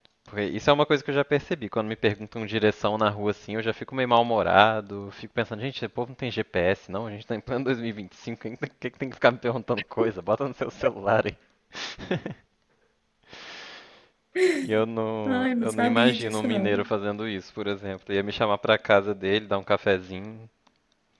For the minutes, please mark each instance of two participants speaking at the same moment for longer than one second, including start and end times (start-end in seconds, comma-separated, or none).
15.2-16.9